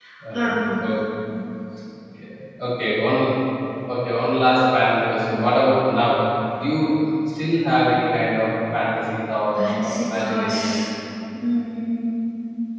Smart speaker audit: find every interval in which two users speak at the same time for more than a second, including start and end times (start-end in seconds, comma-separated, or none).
9.6-10.8